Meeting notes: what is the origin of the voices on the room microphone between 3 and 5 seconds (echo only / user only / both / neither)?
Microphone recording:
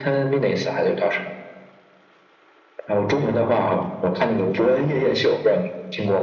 echo only